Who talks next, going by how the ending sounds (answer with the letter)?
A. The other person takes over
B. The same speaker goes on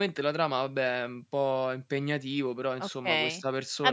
A